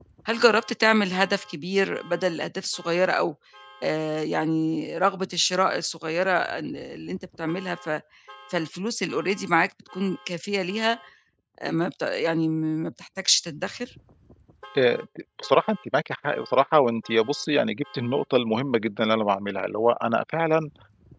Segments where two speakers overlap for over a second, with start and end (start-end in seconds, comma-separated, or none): none